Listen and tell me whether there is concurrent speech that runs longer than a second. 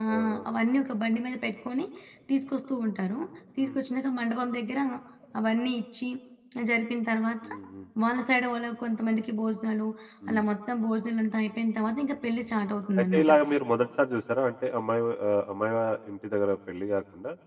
No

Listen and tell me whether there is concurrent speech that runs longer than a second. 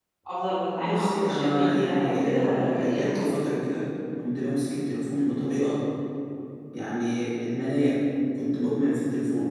Yes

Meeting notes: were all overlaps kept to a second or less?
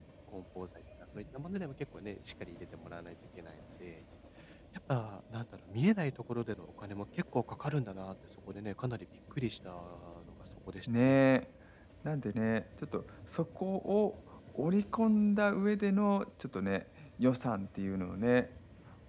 Yes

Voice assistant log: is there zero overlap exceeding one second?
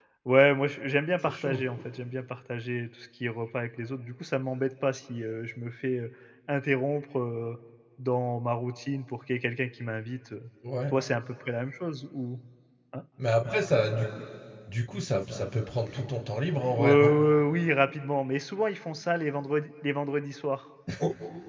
Yes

